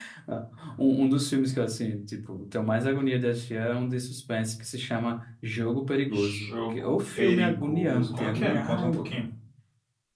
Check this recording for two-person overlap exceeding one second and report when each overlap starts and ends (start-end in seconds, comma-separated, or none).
6.1-9.0